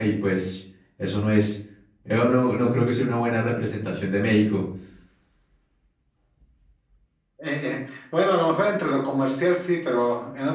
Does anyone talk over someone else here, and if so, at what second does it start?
none

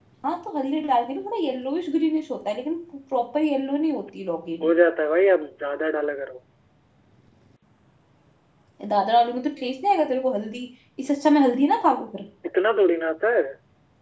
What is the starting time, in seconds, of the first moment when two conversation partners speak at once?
none

